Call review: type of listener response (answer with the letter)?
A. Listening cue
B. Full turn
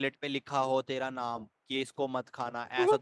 A